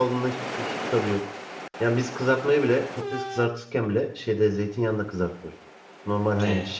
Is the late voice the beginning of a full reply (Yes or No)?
No